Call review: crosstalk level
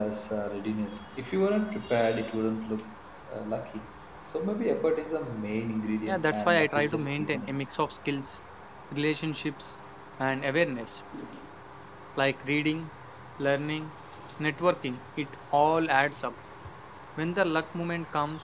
present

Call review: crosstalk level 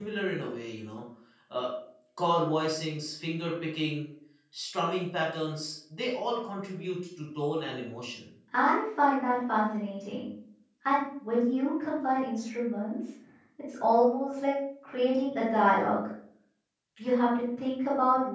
none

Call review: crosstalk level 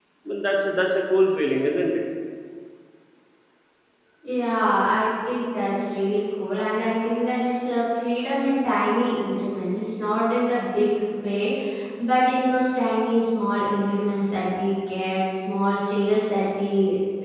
none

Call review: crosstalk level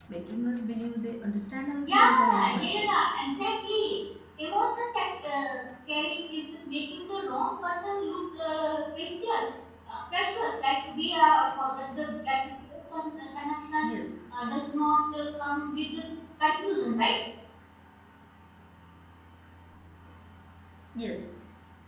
present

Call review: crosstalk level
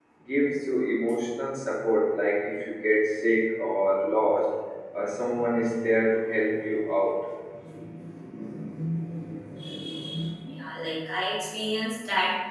none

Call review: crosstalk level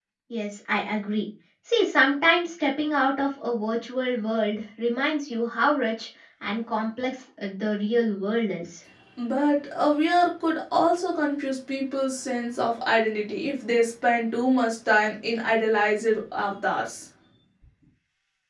none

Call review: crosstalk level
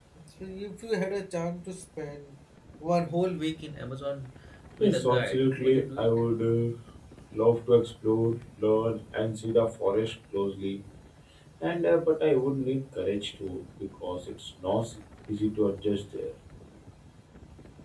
present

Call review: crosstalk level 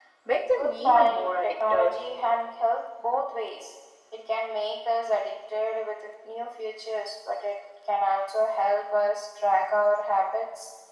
present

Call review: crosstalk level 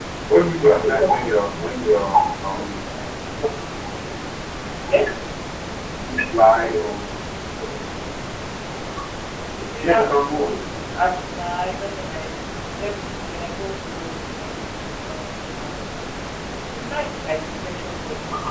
present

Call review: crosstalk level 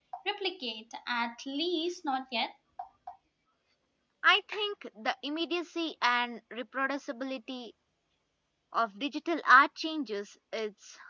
none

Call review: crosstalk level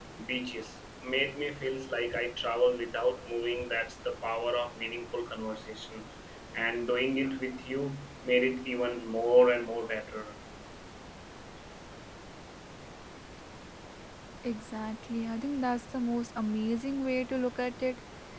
none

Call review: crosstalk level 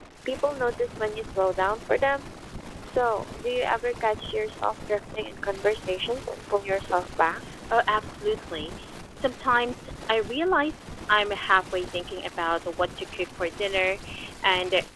none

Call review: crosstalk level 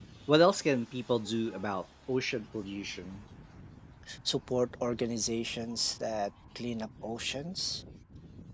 none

